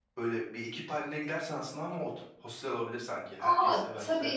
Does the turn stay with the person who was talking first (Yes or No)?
No